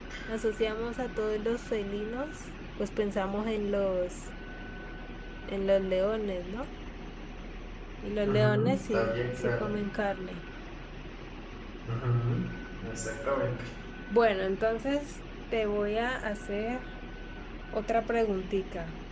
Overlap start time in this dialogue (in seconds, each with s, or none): 8.2 s